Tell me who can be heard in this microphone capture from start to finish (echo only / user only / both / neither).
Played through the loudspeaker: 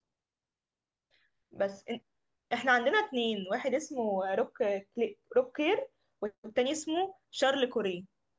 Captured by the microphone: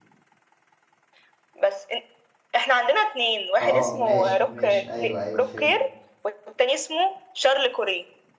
both